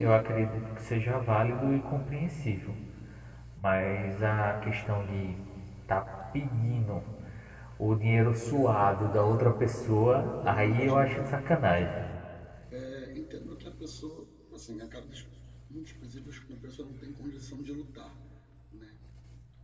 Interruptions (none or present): present